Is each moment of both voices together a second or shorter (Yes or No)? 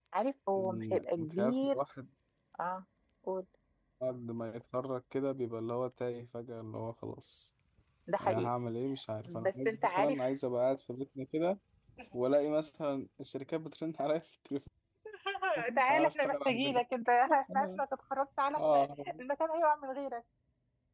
No